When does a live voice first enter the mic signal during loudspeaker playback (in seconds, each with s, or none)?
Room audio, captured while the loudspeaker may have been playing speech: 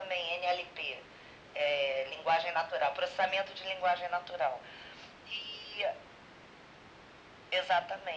none